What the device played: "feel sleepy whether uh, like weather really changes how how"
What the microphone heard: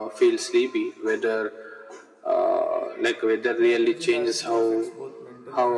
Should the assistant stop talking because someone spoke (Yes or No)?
Yes